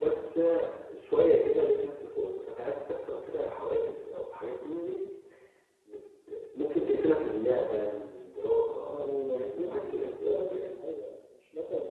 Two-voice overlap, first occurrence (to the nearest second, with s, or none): 9 s